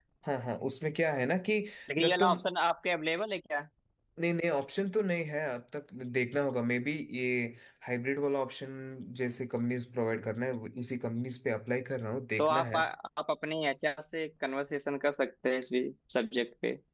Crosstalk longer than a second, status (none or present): none